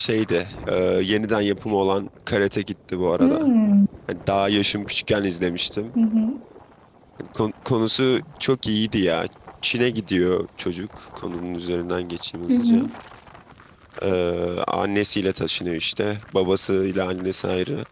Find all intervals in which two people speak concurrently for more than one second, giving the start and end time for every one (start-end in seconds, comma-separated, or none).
none